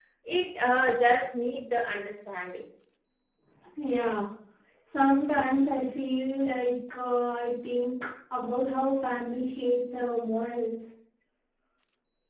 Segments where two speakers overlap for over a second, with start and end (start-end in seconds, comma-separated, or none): none